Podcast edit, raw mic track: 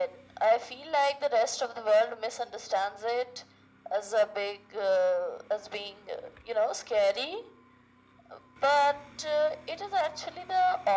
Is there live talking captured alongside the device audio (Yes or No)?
No